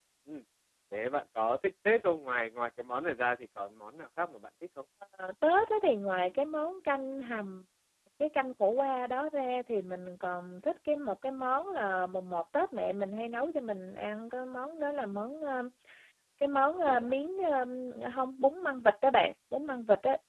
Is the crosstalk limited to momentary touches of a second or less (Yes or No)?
Yes